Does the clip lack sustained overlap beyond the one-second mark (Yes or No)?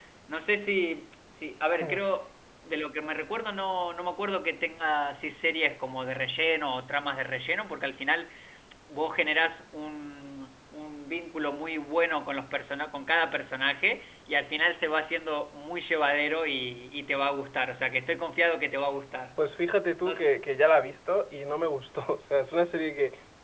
Yes